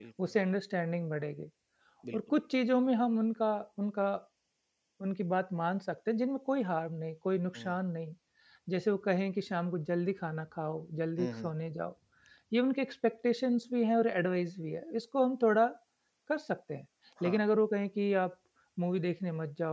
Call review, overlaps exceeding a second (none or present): none